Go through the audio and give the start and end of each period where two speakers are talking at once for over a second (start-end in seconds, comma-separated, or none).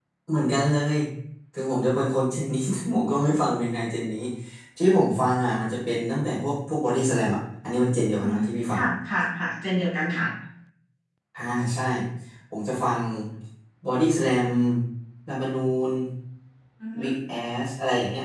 none